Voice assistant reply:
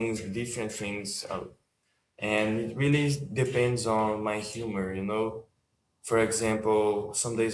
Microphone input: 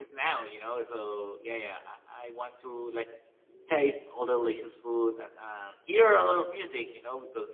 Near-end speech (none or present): present